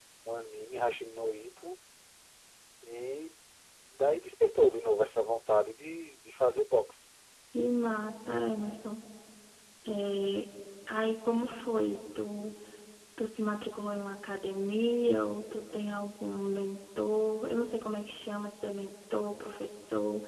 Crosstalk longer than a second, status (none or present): none